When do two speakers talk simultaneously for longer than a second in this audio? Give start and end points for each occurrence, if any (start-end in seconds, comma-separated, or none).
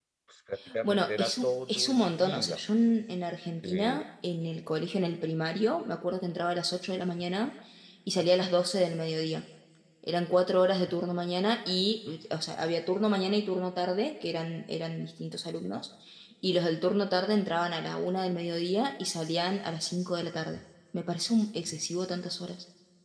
0.8-2.6